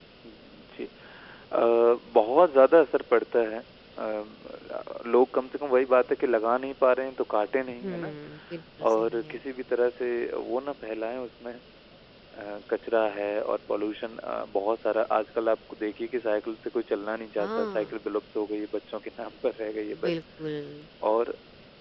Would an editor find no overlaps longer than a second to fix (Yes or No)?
Yes